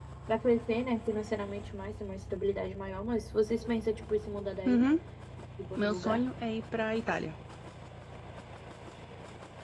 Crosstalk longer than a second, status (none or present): none